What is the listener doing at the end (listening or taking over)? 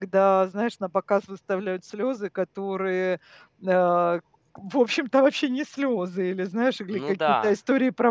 listening